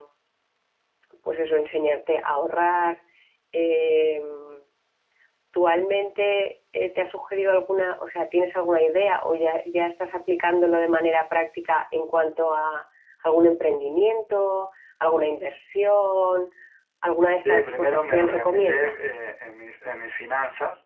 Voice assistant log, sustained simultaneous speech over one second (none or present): present